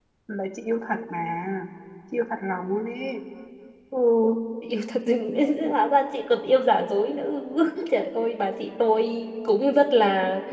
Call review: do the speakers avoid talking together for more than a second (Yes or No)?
Yes